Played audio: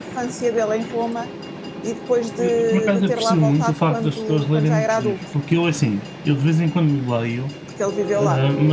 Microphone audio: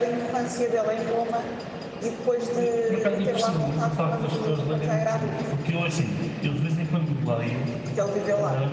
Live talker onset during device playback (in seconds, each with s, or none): none